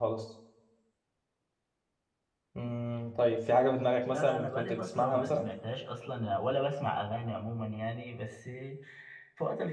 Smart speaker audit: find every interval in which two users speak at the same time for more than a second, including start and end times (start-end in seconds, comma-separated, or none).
4.1-5.5